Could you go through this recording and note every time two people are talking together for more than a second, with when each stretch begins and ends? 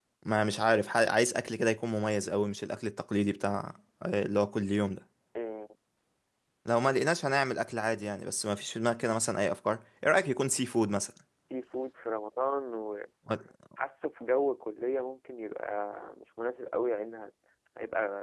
none

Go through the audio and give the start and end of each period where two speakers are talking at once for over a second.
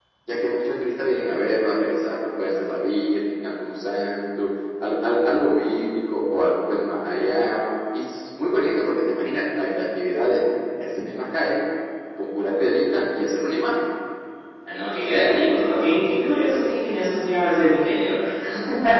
none

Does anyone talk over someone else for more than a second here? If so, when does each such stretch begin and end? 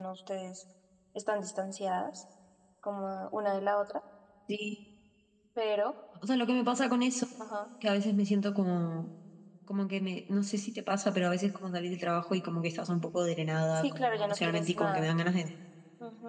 13.8-15.1

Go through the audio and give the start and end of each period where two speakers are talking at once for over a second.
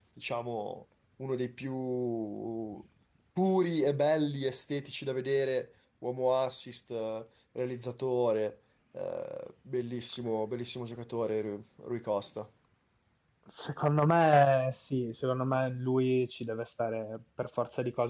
none

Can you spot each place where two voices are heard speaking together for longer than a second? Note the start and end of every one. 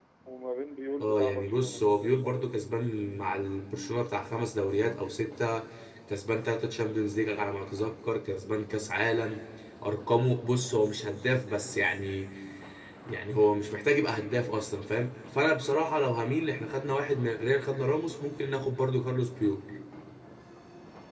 1.0-2.6

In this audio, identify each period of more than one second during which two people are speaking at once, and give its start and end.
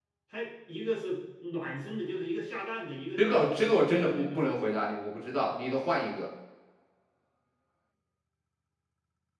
3.2-4.6

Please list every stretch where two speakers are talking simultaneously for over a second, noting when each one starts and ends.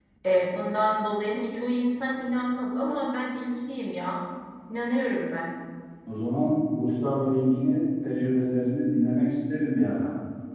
none

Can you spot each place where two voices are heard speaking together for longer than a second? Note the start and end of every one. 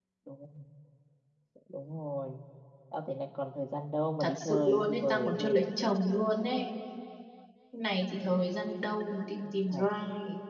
4.2-5.4

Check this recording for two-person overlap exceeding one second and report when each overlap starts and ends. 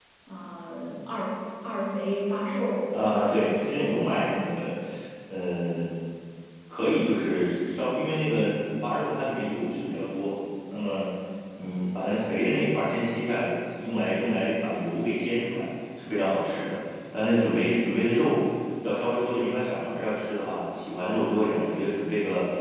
2.9-4.5

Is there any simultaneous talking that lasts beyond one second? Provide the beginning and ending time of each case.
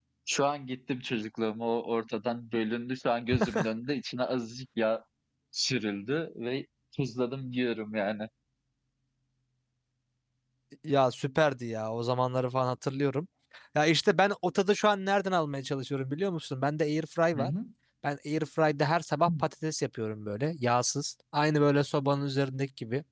none

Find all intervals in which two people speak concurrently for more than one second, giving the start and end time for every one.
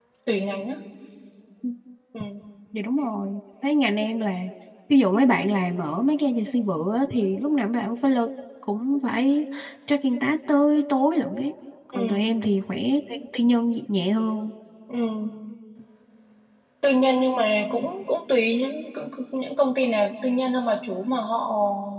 none

